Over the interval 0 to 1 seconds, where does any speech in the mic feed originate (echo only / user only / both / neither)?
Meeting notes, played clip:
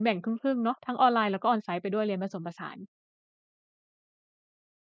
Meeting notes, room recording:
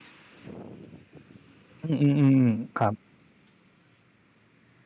neither